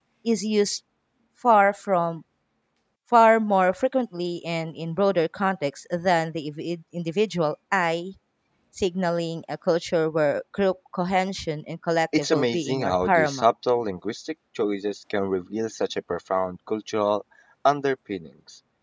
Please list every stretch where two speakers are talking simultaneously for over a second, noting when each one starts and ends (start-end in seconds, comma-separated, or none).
12.2-13.5